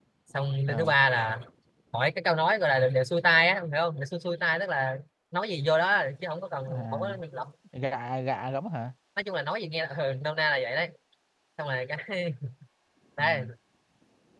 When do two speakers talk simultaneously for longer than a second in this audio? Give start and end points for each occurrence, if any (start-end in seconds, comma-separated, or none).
none